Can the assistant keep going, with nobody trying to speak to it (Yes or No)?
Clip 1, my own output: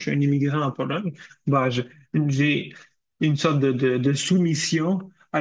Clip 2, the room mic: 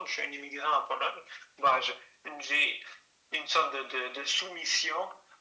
Yes